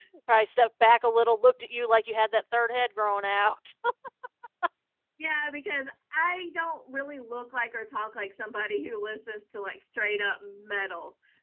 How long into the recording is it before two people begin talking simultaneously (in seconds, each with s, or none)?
none